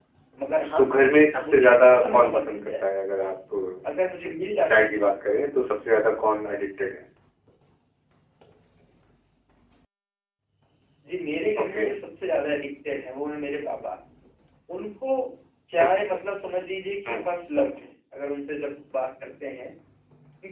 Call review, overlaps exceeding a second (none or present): present